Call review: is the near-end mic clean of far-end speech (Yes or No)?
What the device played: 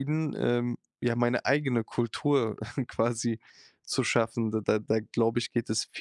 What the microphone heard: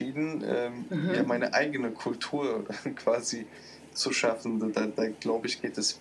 No